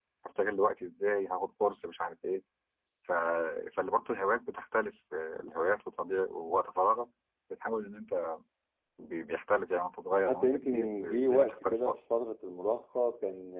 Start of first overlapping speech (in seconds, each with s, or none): 10.3 s